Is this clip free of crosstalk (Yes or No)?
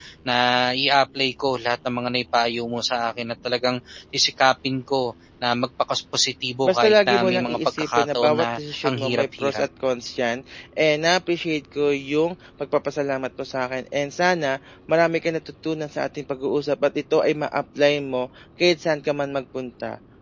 No